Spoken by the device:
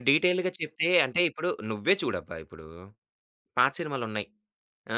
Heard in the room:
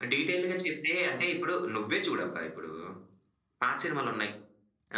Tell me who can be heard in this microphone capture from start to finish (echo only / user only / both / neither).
echo only